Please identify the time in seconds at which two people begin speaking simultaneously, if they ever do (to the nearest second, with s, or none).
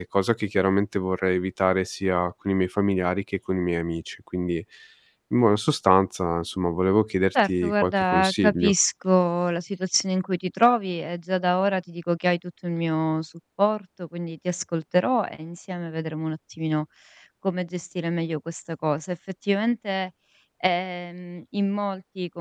7 s